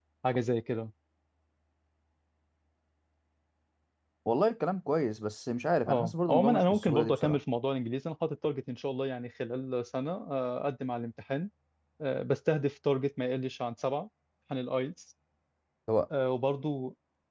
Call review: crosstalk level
present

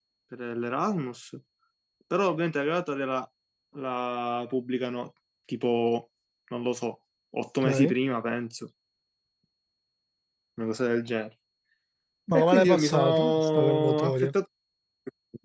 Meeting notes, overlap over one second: present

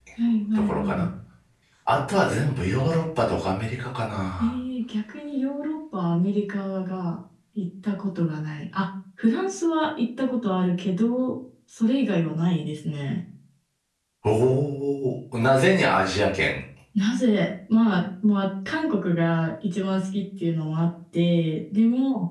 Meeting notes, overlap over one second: none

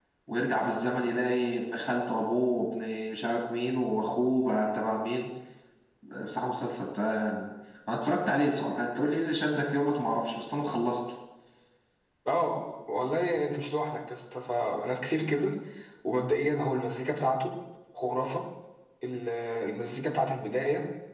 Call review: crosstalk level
none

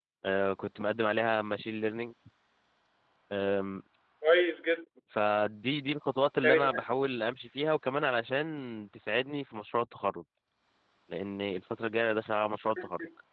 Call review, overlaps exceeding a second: none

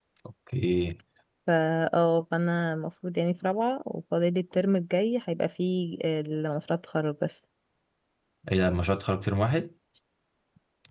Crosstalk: none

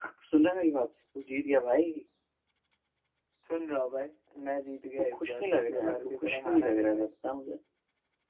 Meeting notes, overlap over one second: present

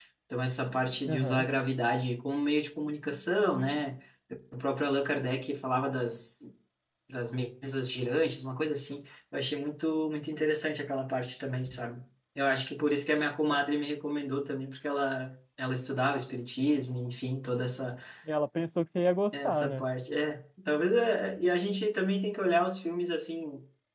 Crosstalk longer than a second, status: none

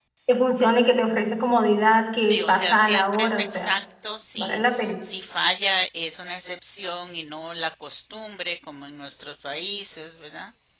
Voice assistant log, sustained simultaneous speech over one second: present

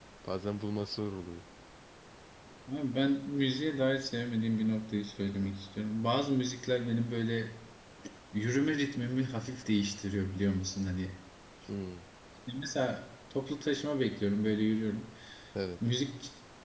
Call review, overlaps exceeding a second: none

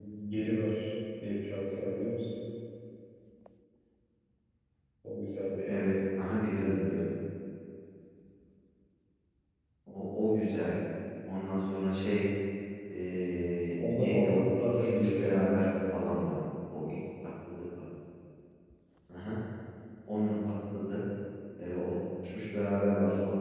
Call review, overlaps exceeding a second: present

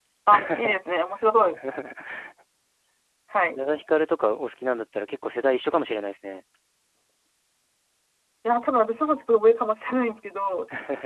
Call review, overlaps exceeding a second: none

